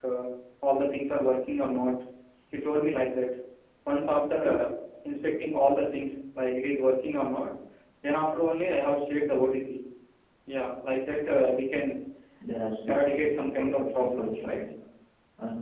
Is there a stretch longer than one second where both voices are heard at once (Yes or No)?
Yes